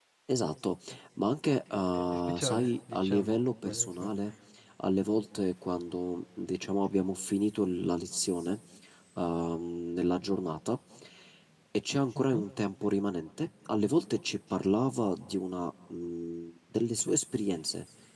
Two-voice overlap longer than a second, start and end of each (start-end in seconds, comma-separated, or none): 1.9-3.8